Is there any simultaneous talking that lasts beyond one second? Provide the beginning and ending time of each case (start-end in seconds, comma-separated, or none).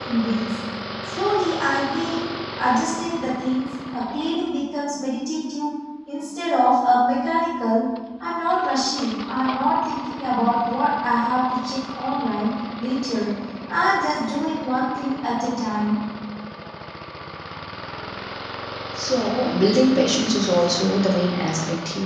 none